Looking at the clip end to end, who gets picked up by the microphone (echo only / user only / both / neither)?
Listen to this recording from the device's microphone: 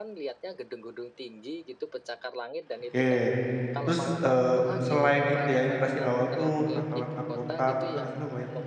both